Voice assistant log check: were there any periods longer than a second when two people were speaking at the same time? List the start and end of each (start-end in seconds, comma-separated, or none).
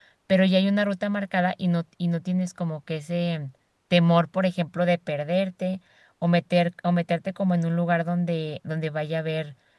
none